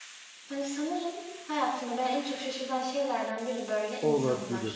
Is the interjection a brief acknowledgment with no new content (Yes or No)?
No